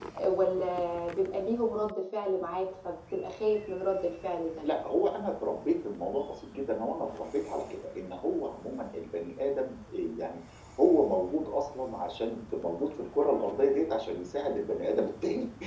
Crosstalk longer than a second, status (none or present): none